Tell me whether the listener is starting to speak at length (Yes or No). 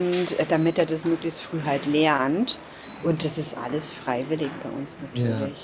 Yes